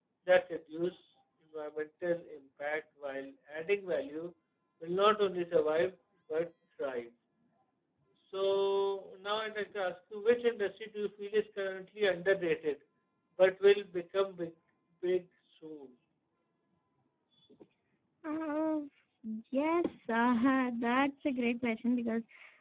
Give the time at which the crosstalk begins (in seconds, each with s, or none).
none